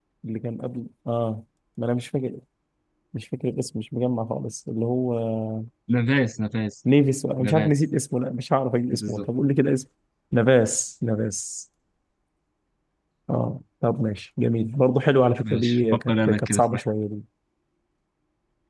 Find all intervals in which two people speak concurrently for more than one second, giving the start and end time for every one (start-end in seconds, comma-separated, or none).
15.5-16.8